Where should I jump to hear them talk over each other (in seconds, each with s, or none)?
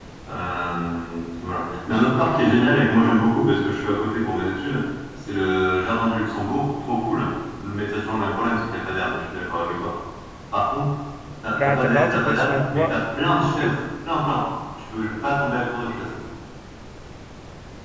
11.6 s